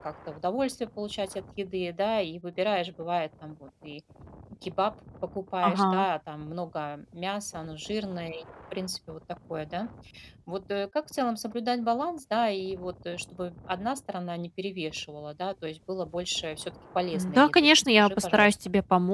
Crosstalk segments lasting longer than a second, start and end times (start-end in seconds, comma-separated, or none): 17.1-18.6